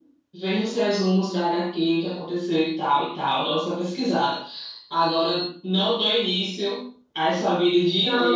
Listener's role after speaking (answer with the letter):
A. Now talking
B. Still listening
A